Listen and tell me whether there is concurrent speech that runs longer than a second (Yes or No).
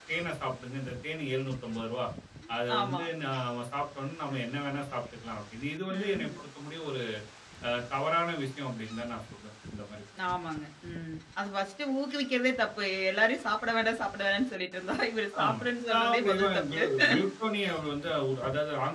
Yes